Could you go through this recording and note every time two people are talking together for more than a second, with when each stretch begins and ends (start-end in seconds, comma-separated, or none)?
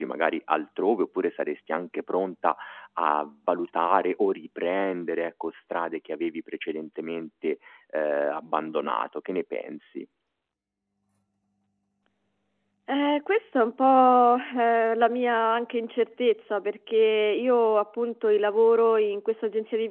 none